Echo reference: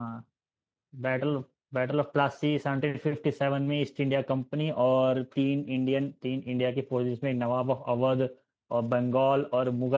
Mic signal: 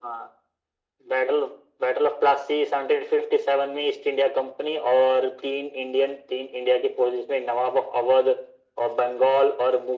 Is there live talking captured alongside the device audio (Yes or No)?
No